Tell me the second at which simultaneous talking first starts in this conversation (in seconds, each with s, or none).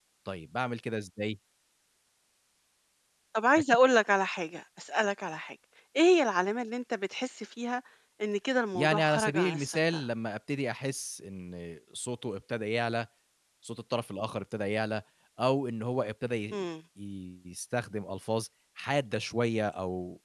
8.8 s